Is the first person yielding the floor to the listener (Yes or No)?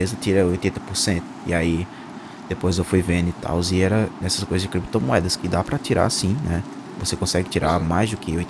No